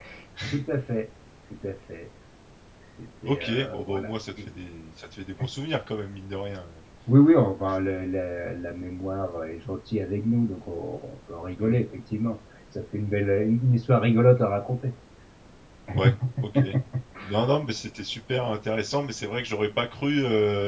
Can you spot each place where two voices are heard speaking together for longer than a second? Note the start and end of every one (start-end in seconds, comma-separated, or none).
3.2-4.5